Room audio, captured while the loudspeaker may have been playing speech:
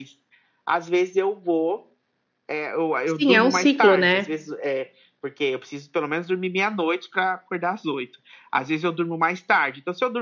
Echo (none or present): present